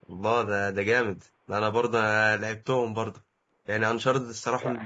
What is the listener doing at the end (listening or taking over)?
listening